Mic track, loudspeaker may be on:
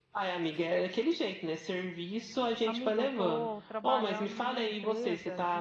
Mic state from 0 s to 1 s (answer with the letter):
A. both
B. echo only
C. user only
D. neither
B